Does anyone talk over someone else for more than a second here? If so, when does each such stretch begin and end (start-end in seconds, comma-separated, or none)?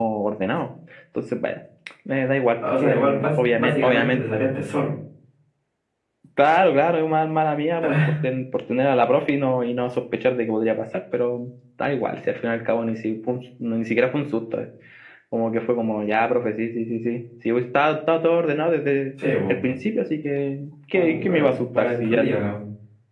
2.8-4.2, 20.9-22.2